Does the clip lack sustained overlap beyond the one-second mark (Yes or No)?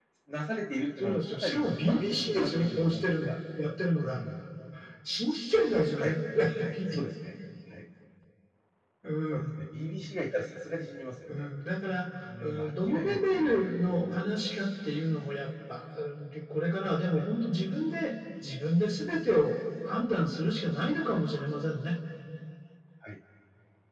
No